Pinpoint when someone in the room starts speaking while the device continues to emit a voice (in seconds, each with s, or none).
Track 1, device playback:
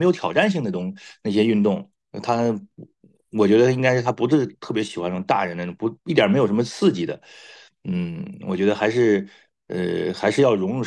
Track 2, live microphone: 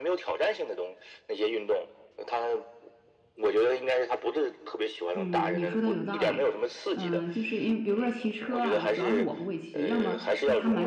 5.1 s